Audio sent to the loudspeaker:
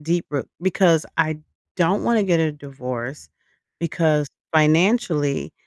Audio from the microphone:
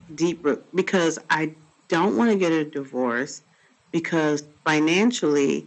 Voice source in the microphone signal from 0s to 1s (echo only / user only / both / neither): echo only